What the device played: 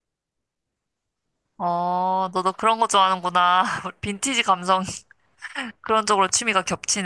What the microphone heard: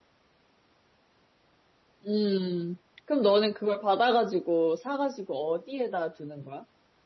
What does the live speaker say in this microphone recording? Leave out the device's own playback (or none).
음, 그럼 너는 그걸 받아가지고, 사가지고 어디에다 두는 거야?